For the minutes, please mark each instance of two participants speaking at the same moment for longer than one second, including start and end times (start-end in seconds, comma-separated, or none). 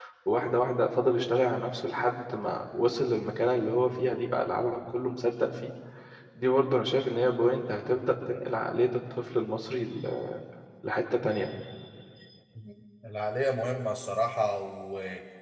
none